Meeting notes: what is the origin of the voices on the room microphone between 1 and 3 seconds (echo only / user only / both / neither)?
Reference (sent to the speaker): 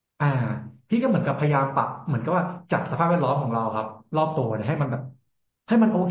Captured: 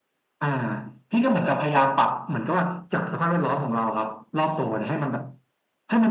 echo only